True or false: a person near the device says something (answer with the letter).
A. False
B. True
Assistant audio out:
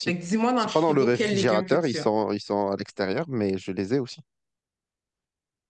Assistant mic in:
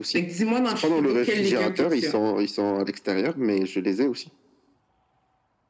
A